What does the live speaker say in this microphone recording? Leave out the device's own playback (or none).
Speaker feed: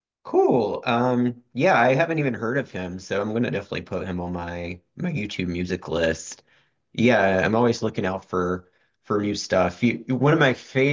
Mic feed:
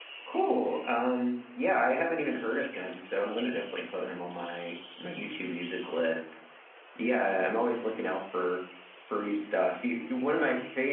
none